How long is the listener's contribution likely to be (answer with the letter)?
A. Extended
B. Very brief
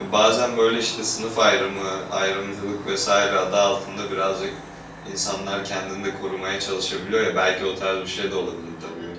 A